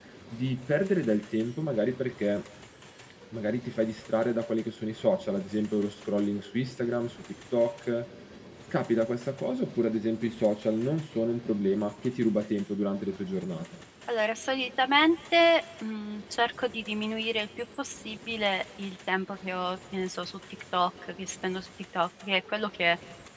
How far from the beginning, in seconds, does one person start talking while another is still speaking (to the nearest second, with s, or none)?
none